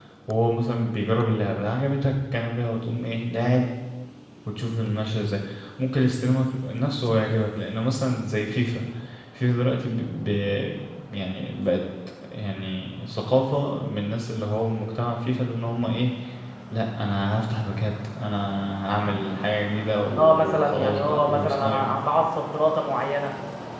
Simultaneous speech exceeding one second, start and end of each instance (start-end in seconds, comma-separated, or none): 20.2-21.8